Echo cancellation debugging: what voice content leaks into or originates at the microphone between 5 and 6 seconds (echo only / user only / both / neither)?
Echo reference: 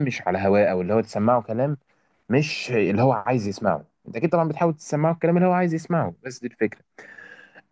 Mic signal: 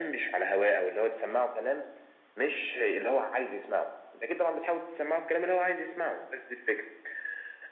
echo only